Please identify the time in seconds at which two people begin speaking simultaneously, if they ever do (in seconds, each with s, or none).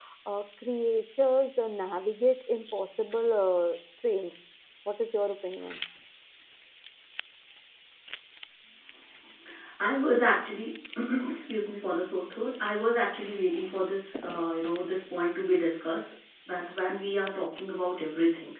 none